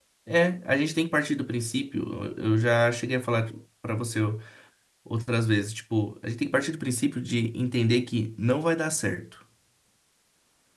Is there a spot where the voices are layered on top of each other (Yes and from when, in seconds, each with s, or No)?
No